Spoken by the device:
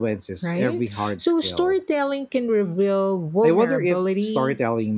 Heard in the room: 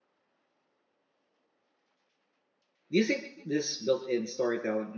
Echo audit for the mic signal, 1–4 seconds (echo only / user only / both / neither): user only